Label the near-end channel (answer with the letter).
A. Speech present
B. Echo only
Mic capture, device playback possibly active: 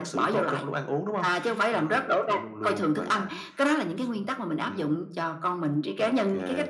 B